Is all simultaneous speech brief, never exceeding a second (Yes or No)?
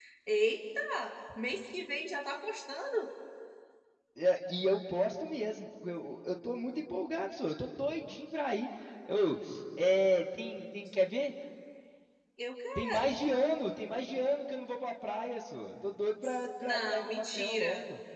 No